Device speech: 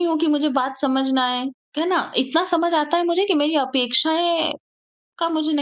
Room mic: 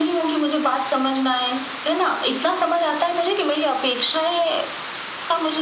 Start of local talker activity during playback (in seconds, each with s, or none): none